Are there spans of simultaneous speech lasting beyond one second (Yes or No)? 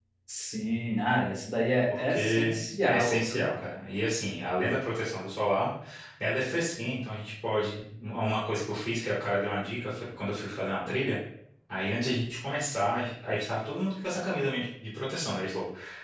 Yes